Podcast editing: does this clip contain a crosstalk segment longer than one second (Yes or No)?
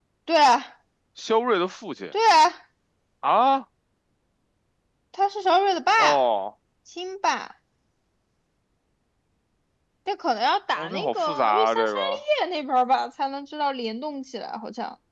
Yes